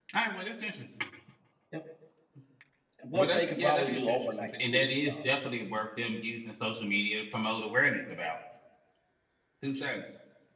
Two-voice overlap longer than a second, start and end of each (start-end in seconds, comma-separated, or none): 3.1-5.3